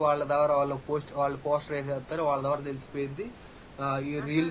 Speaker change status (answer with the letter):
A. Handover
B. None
B